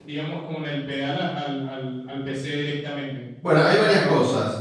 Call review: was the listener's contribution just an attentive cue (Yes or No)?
No